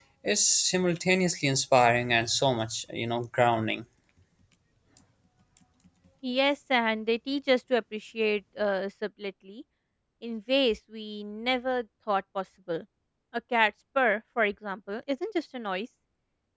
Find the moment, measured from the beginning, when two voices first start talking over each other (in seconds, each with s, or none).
none